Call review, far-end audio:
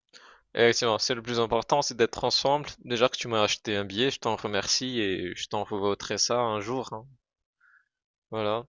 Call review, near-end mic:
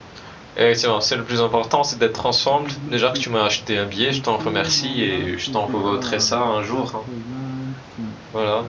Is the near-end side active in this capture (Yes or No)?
Yes